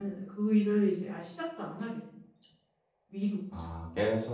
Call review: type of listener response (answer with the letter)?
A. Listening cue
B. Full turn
B